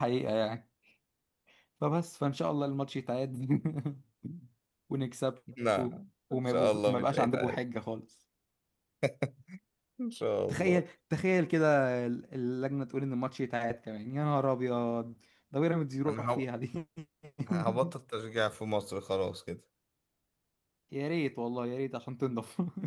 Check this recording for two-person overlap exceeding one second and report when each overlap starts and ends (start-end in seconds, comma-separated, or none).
6.3-7.6